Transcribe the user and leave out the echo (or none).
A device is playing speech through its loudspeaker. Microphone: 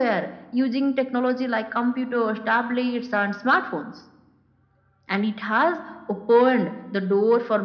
none